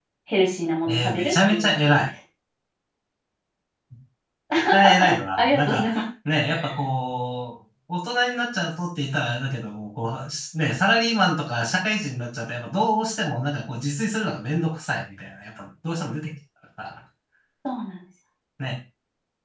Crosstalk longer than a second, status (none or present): present